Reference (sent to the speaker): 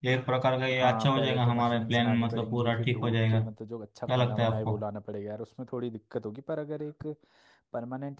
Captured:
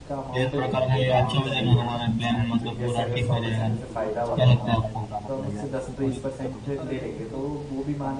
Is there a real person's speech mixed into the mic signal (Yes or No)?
Yes